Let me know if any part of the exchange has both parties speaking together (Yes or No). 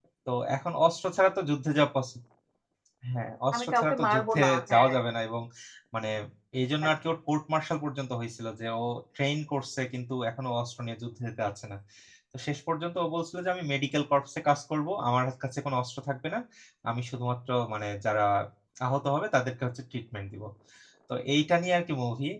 Yes